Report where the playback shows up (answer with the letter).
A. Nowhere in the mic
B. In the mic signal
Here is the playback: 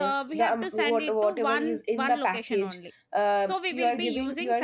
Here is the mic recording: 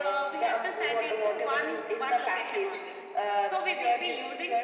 B